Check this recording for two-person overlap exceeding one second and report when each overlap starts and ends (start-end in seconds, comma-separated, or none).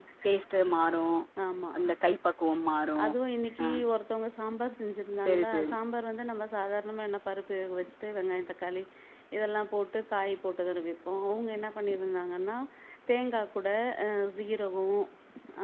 none